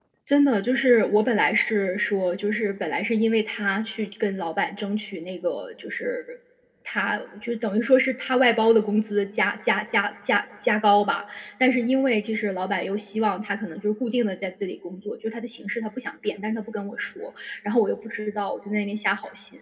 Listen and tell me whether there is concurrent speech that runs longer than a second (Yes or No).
No